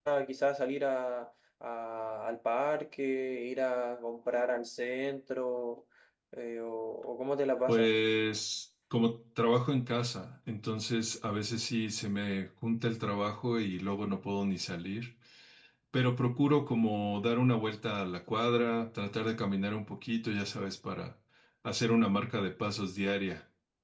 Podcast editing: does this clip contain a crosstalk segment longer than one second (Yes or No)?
No